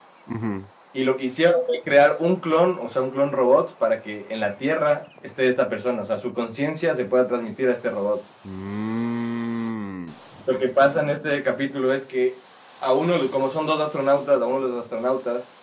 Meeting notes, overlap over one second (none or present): none